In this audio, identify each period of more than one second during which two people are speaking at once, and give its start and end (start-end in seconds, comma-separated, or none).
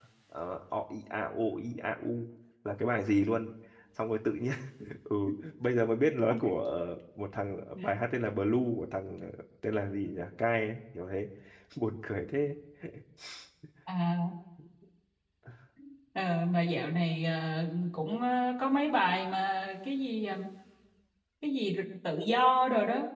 none